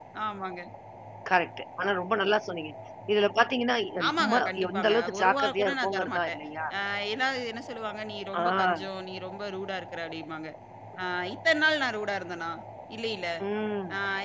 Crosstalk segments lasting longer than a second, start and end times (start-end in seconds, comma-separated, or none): 4.1-6.4